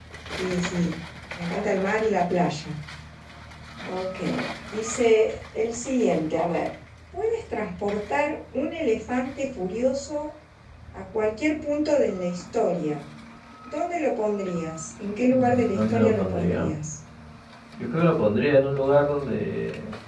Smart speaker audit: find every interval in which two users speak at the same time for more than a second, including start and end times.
15.3-16.7

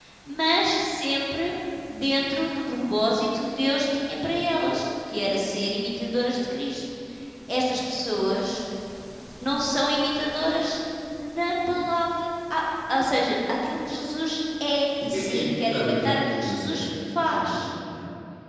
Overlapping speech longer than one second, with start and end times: 15.0-17.7

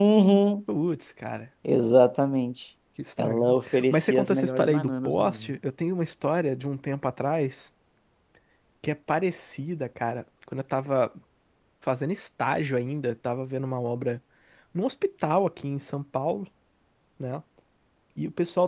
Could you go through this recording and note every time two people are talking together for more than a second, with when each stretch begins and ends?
3.2-5.6

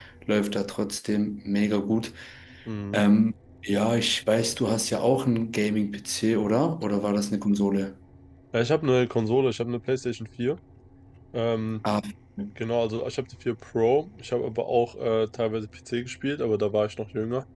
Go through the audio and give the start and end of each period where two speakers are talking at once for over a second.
none

